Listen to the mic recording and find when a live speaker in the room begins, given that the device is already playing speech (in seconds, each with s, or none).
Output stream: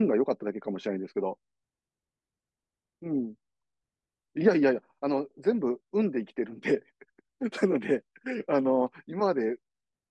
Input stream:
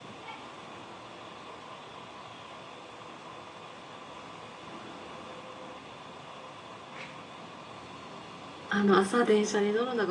8.7 s